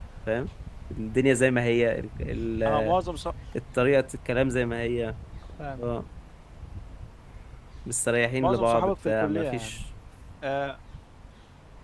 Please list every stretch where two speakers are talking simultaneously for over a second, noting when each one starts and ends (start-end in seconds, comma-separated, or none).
8.4-9.8